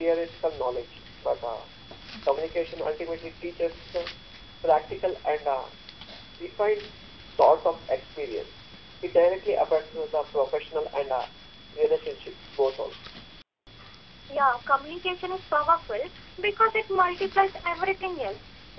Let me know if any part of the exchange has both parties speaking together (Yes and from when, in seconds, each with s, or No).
No